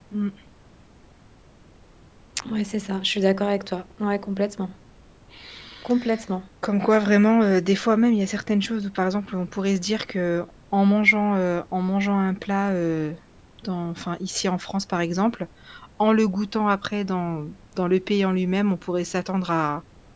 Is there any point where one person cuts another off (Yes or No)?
No